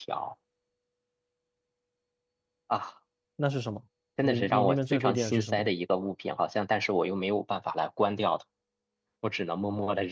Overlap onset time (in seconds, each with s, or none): 4.2 s